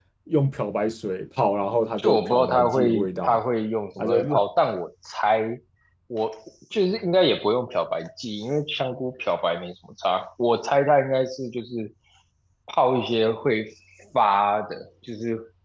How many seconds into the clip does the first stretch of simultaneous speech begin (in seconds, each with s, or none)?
2.0 s